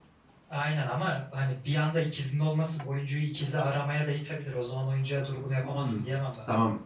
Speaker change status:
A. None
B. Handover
B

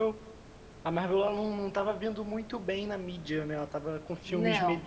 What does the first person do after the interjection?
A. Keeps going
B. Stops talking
A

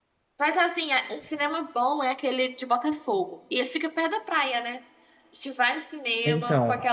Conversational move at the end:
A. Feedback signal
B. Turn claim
A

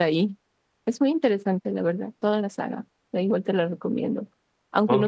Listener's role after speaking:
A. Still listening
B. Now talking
A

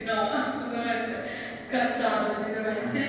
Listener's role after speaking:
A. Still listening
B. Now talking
B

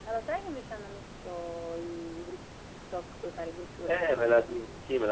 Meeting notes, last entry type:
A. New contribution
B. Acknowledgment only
A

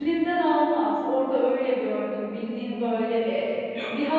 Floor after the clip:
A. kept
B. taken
A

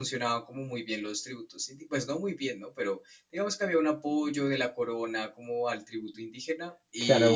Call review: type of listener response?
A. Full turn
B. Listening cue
A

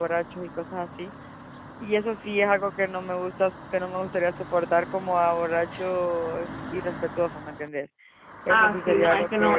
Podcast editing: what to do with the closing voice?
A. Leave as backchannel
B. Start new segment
B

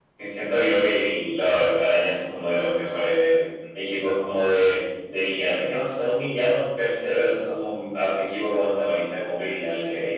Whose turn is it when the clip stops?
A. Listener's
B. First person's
B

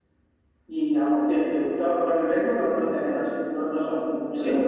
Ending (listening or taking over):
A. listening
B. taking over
B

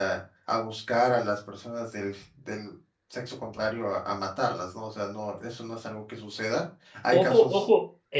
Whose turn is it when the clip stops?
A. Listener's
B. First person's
A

